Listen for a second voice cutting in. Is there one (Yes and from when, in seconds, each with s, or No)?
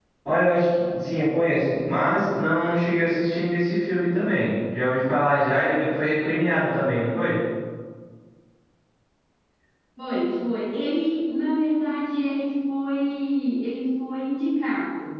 No